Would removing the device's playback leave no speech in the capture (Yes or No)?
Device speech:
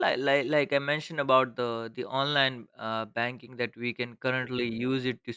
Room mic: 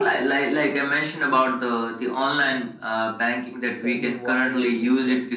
No